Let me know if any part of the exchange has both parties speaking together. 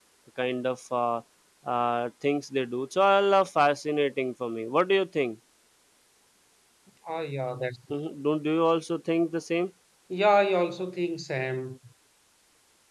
No

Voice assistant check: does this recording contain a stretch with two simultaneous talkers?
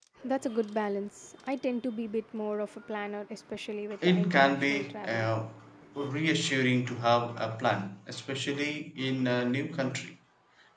Yes, from 4.0 s

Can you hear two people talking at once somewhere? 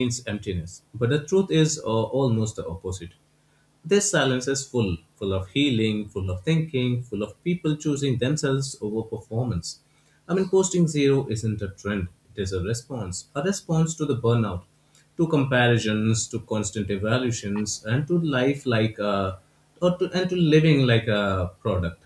No

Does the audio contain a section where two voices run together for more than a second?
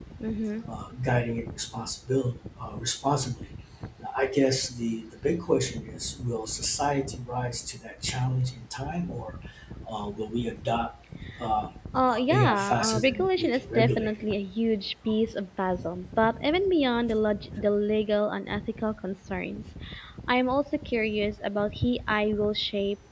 Yes, from 12.1 s

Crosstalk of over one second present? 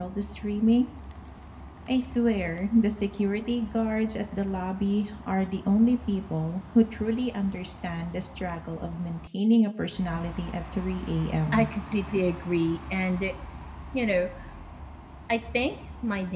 No

